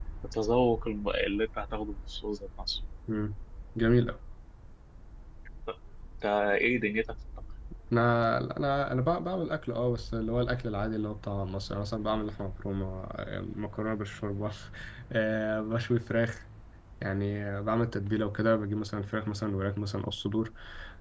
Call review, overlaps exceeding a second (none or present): none